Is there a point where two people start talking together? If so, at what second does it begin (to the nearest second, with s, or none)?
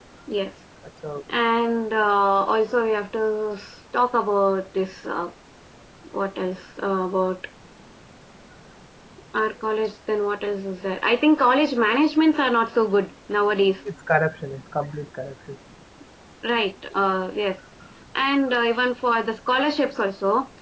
none